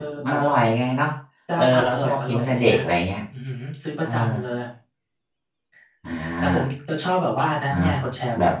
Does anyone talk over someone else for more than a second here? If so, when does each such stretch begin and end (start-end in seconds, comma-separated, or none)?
1.6-2.8